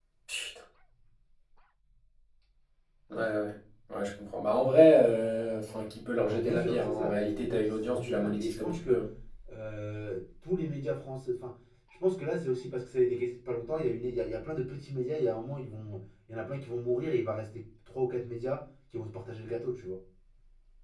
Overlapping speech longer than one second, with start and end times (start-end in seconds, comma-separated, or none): 6.2-9.0